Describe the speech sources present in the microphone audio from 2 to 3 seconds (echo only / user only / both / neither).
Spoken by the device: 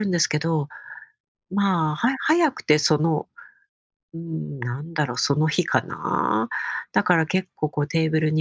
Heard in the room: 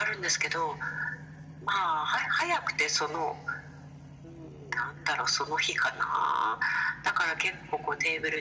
echo only